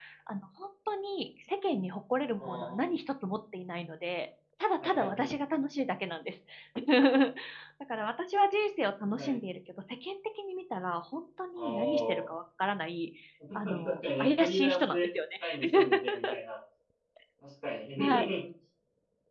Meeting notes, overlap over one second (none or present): present